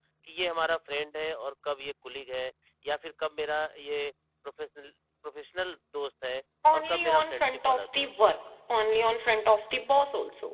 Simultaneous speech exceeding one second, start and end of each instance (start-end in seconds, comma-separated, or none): 6.7-8.1